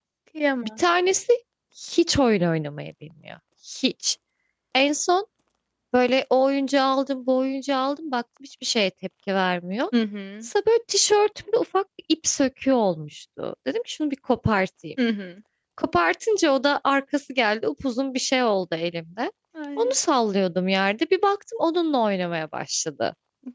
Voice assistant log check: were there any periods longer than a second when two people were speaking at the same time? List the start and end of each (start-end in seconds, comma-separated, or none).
none